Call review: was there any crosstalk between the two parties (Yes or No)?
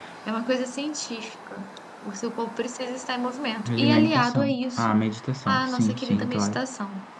Yes